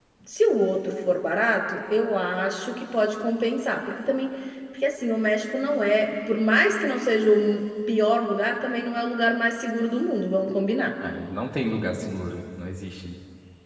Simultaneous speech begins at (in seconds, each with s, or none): none